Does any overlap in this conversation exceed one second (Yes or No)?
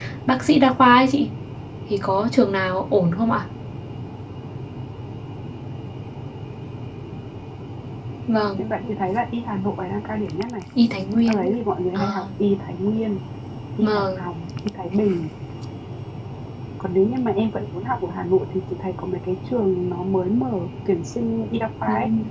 No